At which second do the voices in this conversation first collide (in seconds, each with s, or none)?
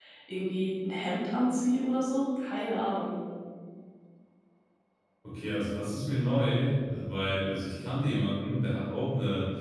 none